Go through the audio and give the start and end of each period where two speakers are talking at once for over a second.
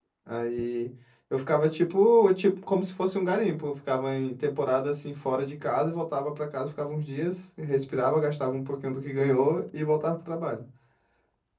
none

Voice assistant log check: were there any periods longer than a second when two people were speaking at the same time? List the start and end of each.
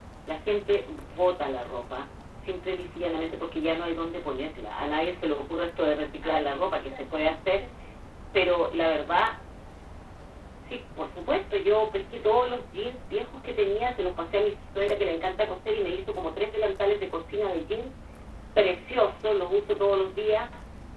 6.2-7.6

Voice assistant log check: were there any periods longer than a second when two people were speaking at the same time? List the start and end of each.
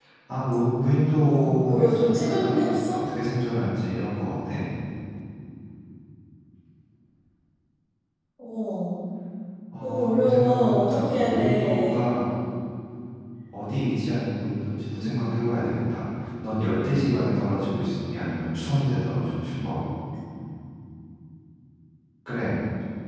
1.2-3.0, 9.8-11.9

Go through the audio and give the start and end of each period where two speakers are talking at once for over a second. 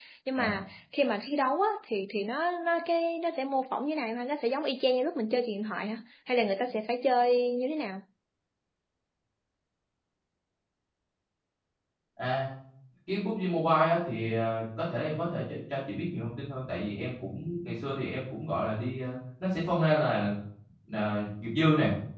none

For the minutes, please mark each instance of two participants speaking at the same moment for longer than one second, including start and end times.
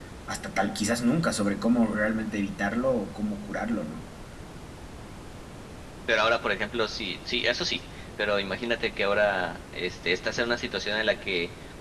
none

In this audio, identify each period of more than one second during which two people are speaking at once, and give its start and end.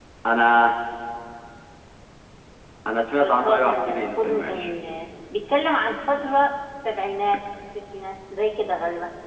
3.2-4.7

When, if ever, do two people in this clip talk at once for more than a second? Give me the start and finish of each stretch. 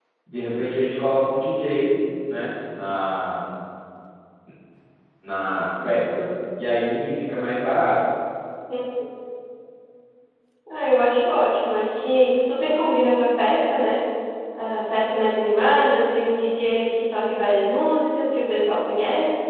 none

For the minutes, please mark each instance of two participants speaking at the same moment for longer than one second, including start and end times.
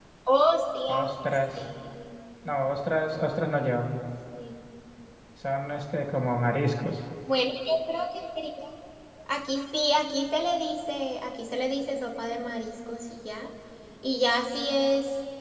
none

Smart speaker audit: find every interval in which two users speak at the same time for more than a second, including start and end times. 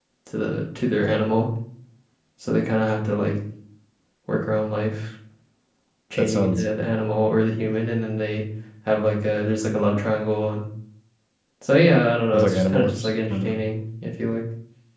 12.3-13.6

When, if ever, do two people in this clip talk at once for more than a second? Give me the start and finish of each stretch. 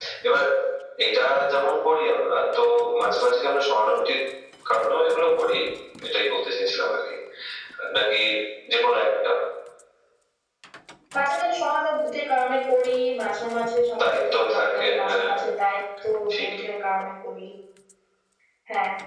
14.0-15.3

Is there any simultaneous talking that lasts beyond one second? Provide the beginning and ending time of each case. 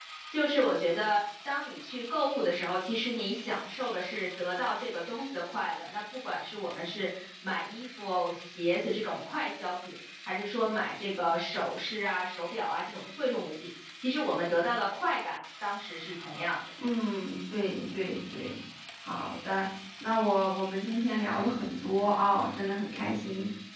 none

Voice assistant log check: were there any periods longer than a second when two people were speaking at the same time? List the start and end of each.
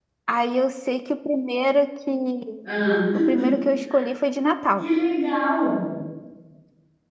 none

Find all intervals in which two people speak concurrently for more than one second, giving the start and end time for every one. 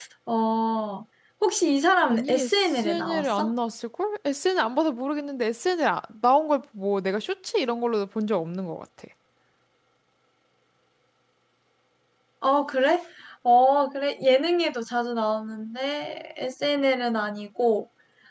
2.1-3.5

